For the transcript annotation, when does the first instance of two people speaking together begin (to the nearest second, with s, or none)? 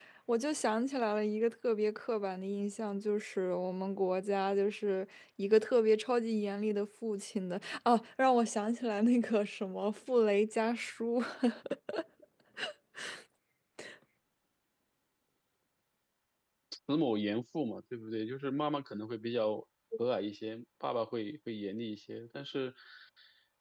none